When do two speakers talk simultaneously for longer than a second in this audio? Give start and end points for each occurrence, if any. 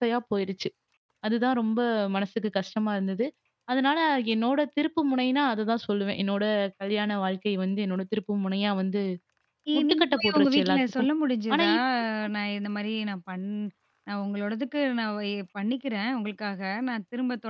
9.8-11.1

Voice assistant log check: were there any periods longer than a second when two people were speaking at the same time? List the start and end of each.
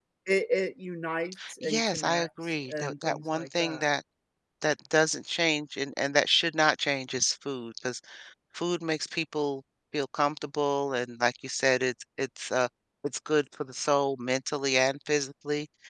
1.6-3.8

